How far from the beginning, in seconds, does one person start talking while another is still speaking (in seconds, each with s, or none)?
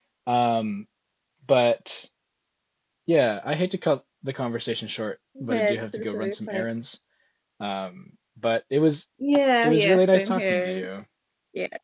5.4 s